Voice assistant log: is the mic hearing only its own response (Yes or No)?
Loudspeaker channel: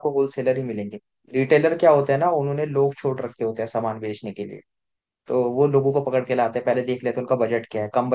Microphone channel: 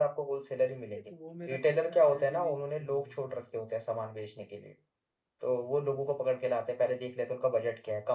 No